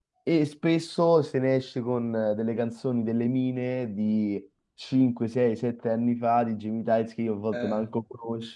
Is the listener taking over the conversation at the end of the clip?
No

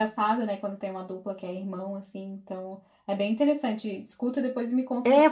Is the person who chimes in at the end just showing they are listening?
No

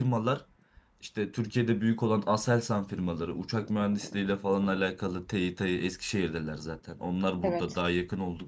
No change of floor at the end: Yes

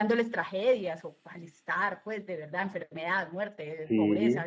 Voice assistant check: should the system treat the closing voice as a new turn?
No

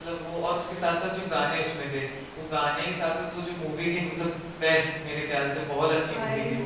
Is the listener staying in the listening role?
No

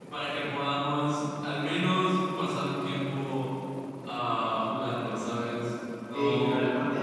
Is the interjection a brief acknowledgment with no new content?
No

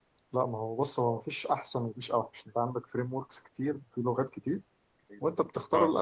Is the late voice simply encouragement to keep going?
Yes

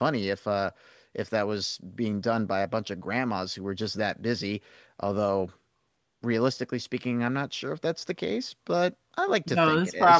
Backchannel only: No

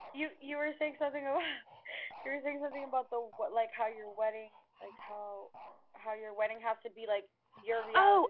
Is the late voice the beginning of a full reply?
Yes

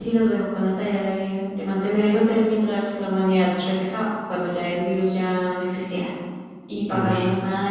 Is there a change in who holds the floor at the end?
No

